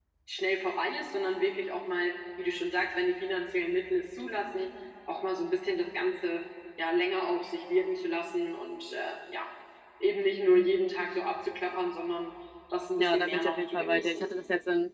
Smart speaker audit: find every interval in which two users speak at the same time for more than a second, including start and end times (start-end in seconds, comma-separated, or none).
13.0-14.2